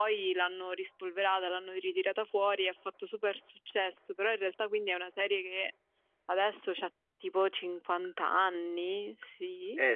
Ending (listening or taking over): taking over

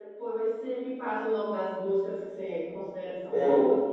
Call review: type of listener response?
taking over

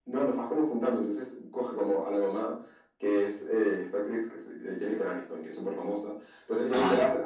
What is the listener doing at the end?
listening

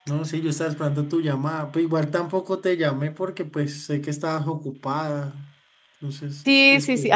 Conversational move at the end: taking over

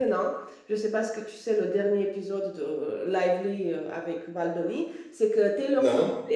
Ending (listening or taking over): listening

